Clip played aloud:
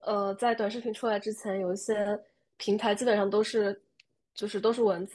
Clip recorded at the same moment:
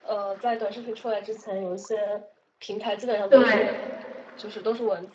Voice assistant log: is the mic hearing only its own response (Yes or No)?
No